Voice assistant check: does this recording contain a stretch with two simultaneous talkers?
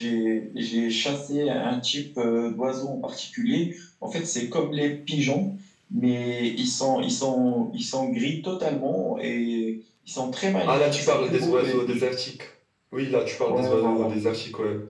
Yes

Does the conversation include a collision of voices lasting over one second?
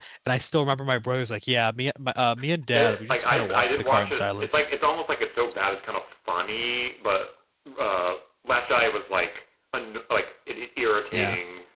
Yes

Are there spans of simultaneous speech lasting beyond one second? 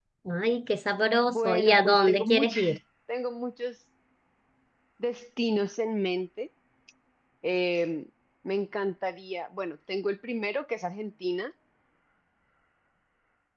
Yes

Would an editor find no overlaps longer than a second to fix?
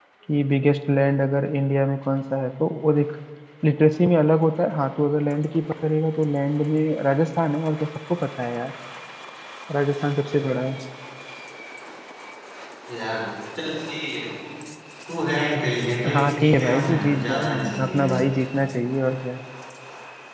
No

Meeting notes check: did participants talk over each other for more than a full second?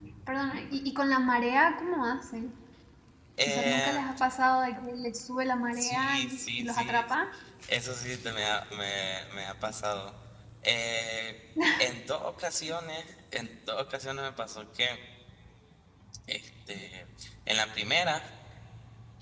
Yes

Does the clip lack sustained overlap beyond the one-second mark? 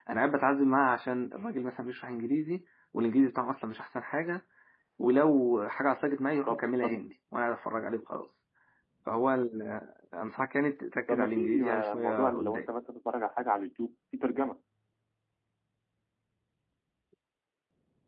No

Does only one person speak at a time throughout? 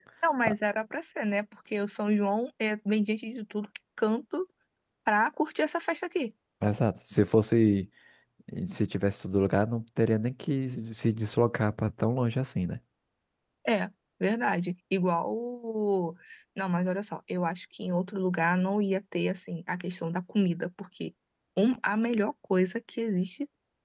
Yes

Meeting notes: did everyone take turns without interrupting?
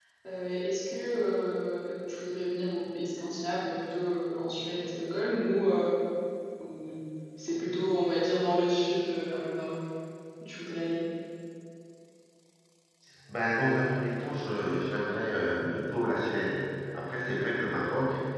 Yes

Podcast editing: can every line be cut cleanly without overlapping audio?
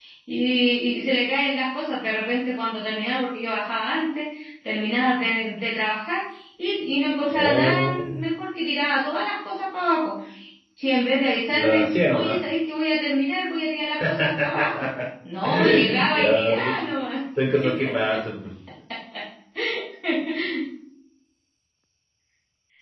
No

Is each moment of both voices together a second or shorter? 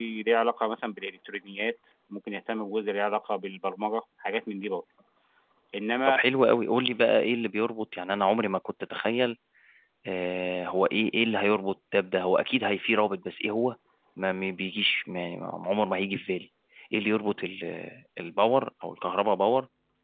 Yes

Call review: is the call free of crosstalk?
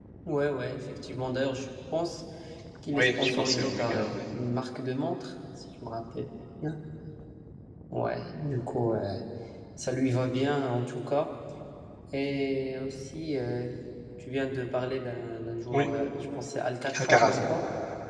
No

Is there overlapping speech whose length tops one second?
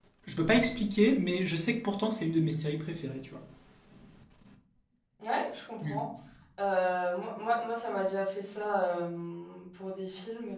No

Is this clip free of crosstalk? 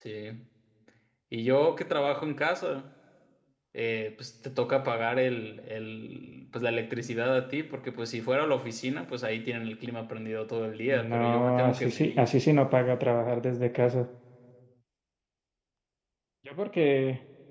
No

